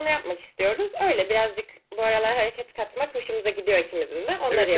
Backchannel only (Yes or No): No